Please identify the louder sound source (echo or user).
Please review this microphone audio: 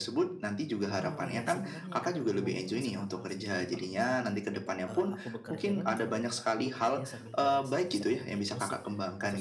echo